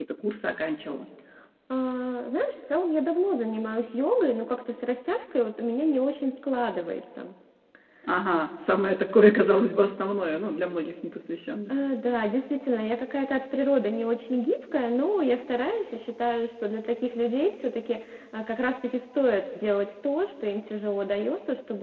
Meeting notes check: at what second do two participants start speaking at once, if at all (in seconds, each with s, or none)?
none